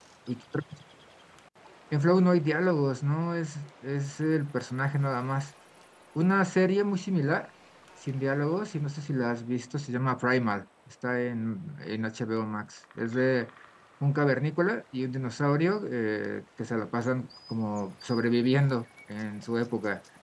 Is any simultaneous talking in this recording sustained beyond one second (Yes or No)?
No